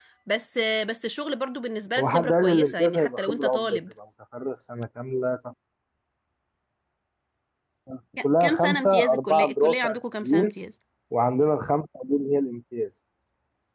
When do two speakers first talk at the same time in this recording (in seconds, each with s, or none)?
2.0 s